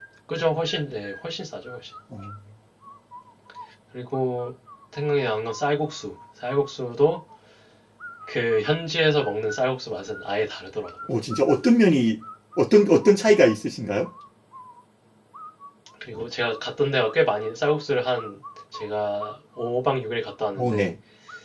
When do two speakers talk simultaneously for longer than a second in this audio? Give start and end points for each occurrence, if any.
none

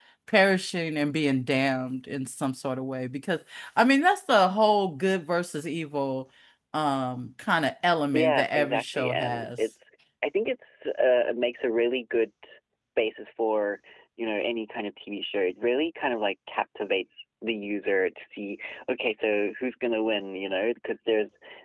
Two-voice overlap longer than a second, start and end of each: 8.1-9.5

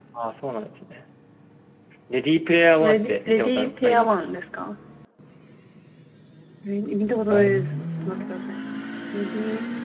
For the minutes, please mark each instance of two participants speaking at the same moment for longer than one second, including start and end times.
2.8-4.3

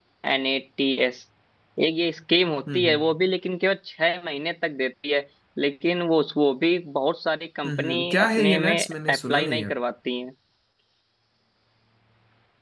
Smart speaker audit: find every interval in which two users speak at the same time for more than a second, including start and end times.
7.7-9.7

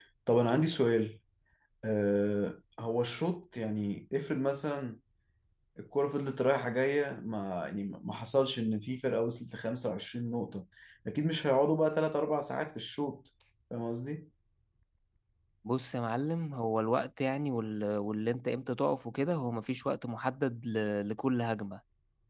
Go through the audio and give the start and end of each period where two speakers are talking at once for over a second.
none

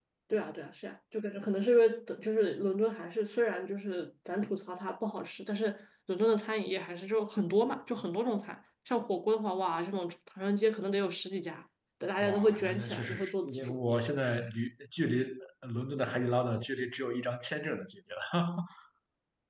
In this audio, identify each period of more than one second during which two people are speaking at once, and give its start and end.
12.2-13.8

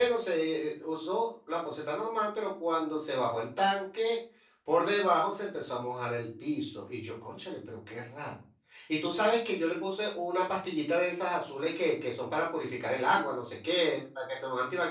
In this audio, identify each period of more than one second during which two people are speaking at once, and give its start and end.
none

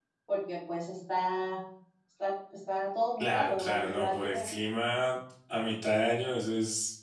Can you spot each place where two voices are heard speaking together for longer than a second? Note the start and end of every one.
3.2-4.5

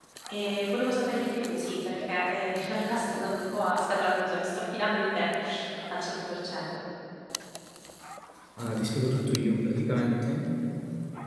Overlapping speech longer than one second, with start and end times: none

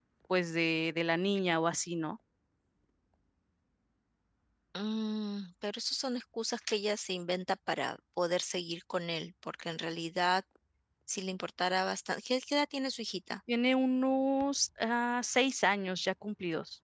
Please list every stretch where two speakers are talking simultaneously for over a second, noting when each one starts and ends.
none

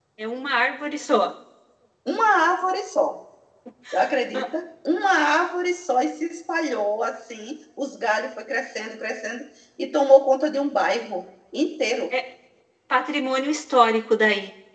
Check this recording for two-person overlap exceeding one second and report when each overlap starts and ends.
none

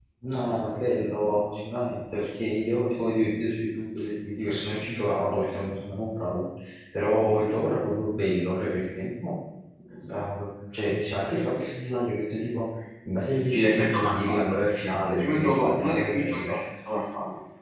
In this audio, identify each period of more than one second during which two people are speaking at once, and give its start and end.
13.5-16.6

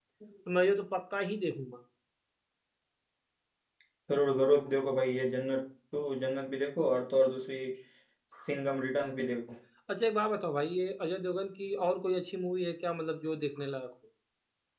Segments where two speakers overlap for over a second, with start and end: none

